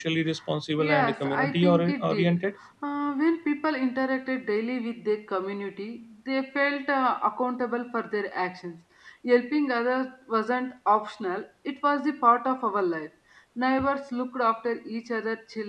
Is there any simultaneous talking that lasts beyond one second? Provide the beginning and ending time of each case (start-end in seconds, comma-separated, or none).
0.8-2.4